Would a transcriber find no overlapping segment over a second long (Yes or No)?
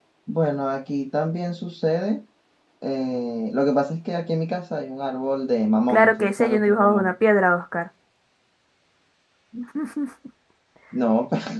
No